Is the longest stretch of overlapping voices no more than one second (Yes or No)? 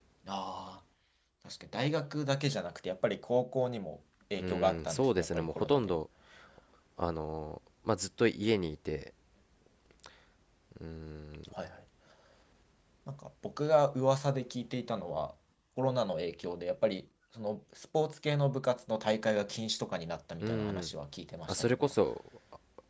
No